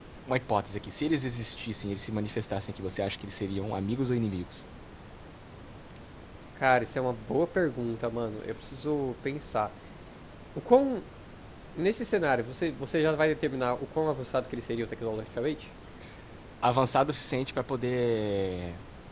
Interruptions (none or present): none